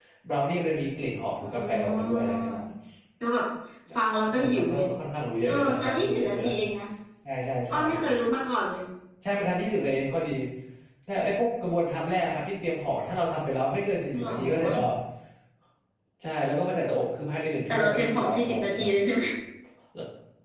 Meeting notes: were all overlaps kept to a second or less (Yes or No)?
No